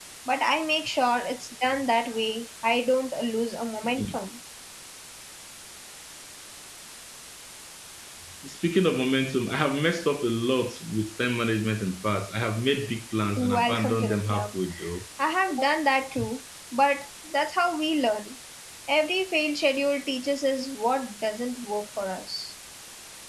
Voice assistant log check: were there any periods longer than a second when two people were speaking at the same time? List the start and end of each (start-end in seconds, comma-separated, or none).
13.4-14.6